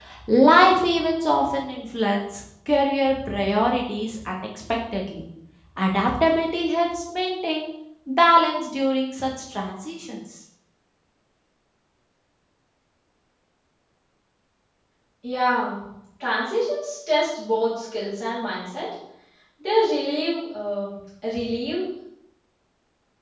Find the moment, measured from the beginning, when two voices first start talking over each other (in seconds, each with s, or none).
none